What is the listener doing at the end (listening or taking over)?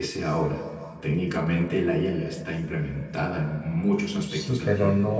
taking over